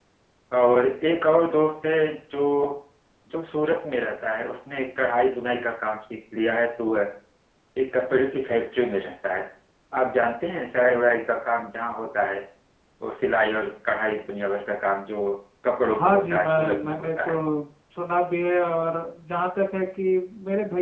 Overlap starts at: 16.0 s

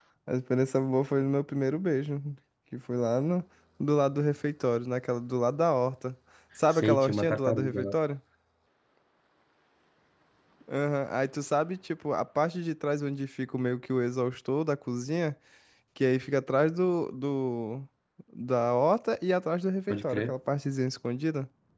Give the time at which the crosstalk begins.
6.7 s

